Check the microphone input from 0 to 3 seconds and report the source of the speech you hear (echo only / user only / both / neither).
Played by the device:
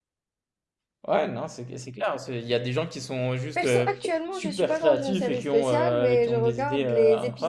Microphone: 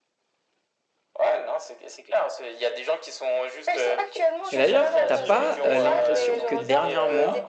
echo only